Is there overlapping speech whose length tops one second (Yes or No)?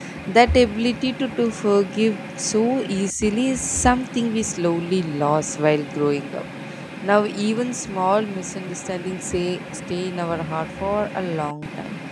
No